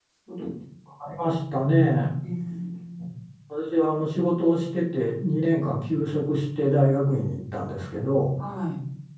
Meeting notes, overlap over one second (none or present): none